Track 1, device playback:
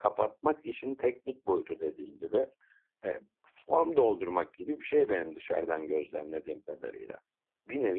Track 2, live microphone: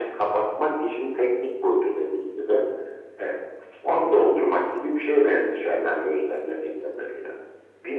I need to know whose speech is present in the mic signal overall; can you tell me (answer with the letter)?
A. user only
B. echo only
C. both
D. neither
B